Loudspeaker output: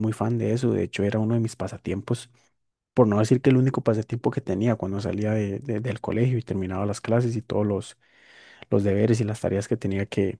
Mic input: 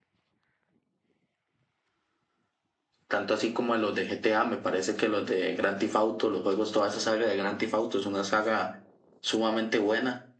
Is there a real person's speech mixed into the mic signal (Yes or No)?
Yes